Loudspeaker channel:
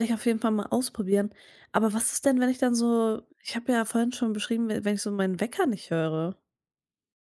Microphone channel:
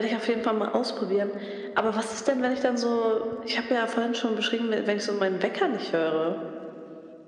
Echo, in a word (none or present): present